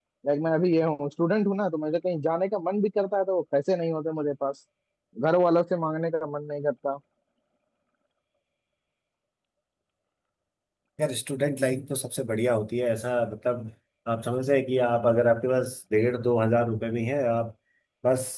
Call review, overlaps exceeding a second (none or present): none